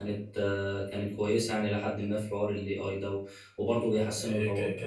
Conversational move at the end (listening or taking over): taking over